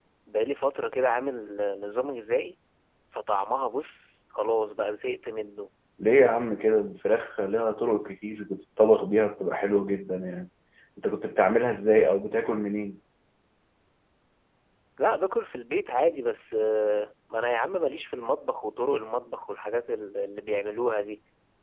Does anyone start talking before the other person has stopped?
No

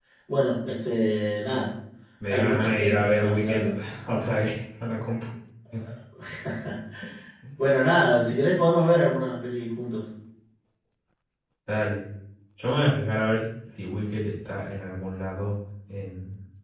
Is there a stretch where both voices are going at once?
Yes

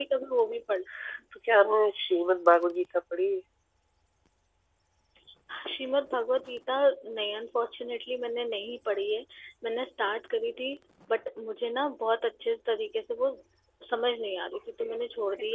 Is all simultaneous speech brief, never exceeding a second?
Yes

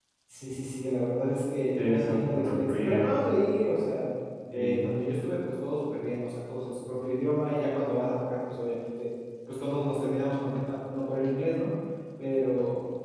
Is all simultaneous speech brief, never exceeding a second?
No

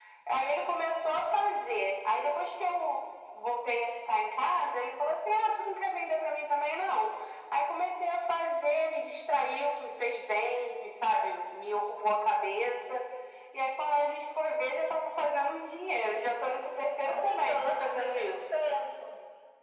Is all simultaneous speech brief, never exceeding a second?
No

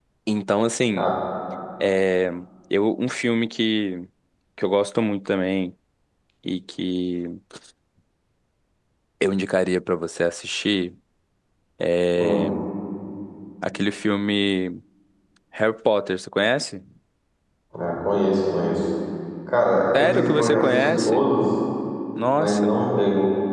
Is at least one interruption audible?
Yes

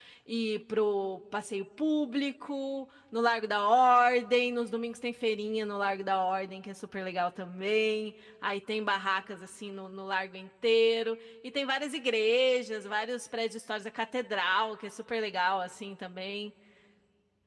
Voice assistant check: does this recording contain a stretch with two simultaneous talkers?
No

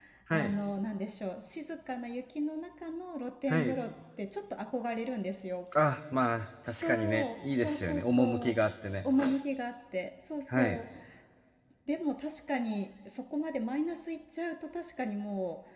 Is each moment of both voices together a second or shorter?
No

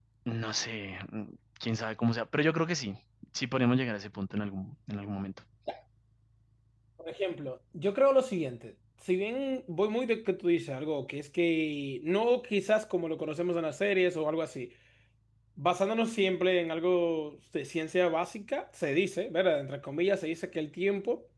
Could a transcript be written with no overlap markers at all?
Yes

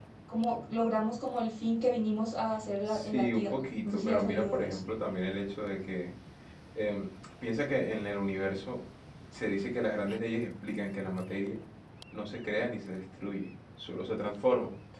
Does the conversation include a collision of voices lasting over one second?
Yes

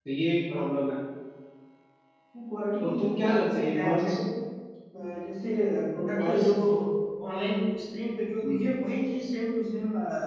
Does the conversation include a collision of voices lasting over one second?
Yes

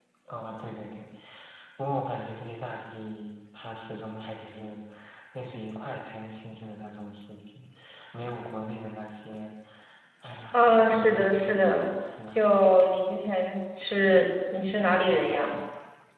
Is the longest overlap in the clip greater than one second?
Yes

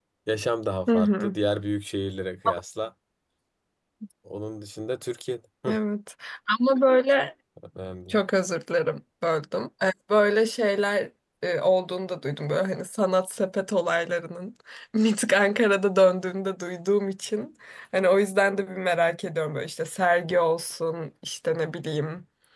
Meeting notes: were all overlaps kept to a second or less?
Yes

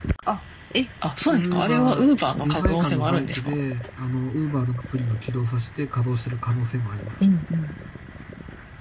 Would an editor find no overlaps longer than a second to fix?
No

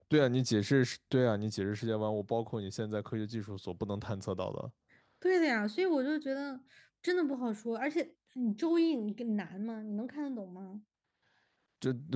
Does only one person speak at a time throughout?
Yes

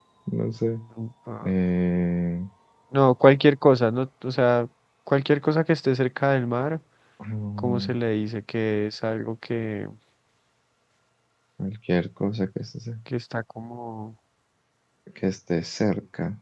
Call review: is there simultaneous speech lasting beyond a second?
No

